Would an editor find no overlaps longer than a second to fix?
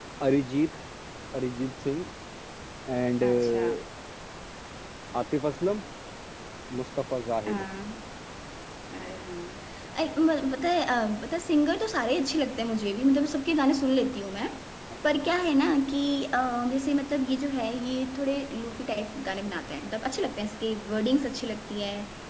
Yes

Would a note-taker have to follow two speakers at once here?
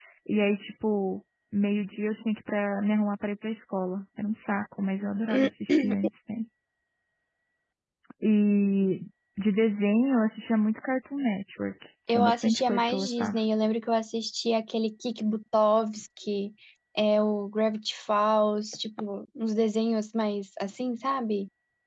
Yes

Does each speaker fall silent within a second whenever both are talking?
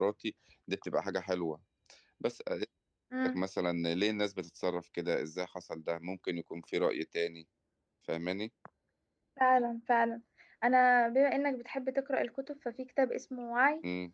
Yes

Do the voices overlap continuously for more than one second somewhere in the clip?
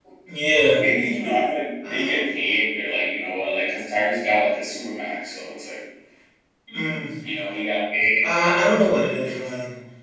No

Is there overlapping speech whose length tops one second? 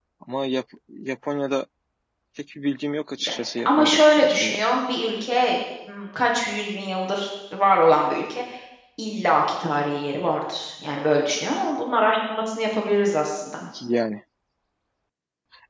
Yes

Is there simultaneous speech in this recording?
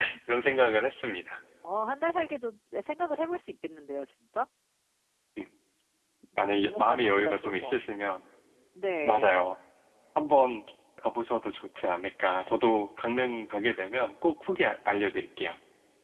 Yes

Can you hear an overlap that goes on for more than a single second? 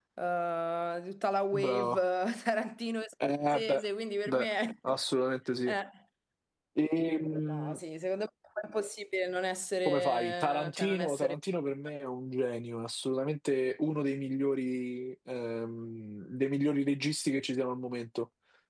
Yes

